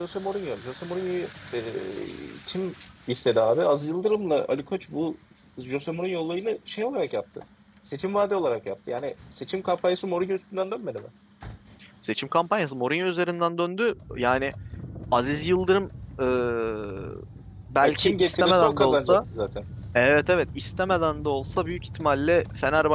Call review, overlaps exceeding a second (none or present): present